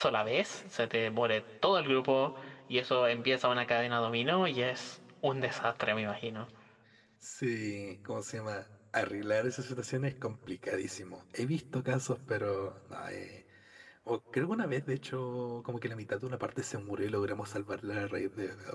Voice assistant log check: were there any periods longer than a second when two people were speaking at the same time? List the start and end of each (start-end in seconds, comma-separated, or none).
none